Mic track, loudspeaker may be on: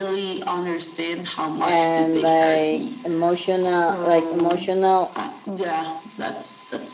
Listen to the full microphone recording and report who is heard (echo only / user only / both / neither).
both